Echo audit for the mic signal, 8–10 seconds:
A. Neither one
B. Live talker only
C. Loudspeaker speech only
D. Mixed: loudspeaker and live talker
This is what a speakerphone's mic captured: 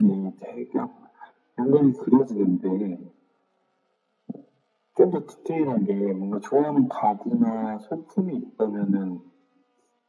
C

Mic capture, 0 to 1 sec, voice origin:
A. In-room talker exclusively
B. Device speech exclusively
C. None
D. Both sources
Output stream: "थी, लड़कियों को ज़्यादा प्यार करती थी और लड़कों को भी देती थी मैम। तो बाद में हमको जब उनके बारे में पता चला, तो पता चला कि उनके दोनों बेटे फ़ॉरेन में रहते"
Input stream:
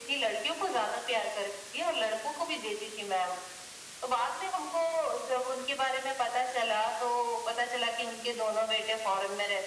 B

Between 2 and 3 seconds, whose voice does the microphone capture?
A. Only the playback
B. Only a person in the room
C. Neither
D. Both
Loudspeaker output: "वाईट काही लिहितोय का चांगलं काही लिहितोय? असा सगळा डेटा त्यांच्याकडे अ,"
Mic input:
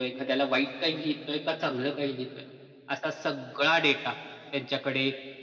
A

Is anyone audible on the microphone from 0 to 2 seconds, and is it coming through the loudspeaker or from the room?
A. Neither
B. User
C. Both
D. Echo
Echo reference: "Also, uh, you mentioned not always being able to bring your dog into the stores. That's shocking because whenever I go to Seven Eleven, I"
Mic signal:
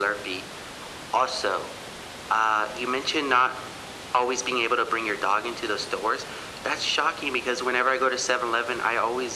D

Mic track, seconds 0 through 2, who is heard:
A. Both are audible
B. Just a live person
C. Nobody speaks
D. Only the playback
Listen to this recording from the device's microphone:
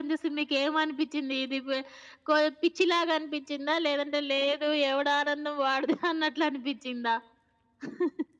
D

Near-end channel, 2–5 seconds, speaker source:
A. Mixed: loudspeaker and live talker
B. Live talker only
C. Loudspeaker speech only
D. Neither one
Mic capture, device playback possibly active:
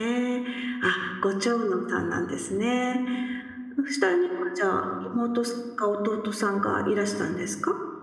B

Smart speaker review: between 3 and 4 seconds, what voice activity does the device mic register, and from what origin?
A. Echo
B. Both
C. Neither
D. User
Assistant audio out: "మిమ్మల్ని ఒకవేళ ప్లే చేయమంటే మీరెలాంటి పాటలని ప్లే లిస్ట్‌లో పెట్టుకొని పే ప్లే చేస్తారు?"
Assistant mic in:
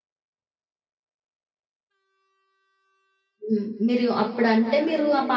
D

